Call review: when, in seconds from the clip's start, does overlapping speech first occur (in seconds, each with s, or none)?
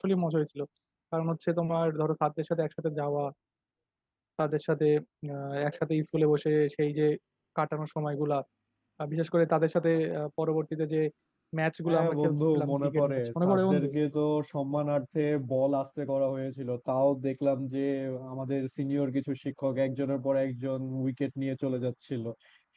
11.9 s